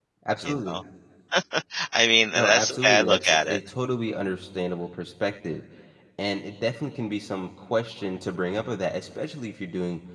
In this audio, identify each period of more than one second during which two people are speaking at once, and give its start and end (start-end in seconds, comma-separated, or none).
2.4-3.6